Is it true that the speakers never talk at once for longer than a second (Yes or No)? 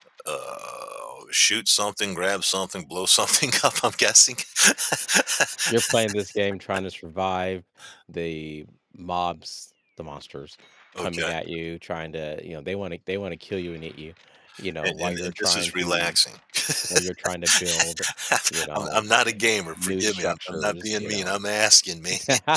No